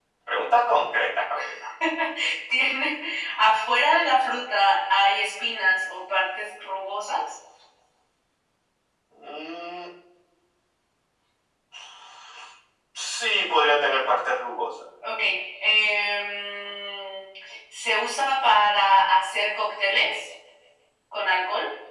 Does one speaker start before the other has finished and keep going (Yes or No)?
No